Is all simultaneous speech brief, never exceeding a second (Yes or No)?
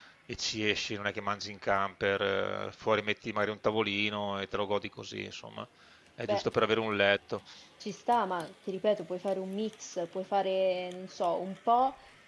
Yes